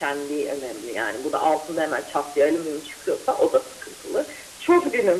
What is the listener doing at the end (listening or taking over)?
listening